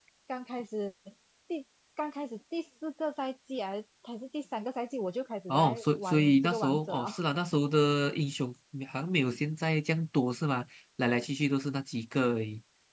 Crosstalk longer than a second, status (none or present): present